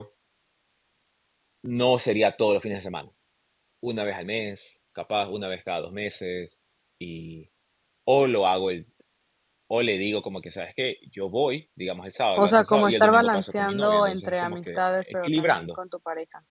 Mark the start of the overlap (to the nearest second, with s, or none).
12 s